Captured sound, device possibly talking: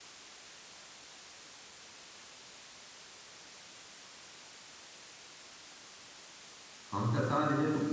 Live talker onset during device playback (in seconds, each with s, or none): 6.9 s